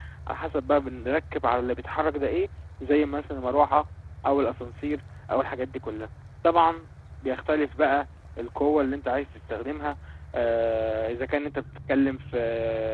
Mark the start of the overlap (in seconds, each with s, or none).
none